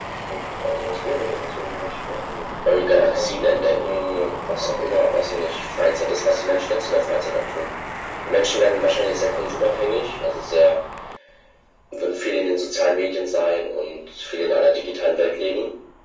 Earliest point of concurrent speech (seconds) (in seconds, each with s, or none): 2.7 s